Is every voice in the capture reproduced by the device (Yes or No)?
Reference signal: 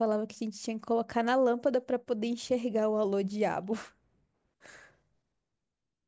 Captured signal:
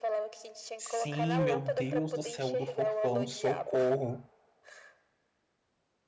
No